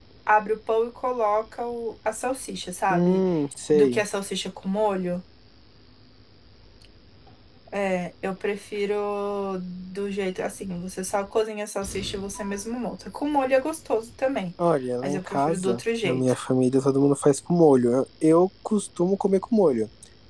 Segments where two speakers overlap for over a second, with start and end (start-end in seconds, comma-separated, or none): 15.0-16.3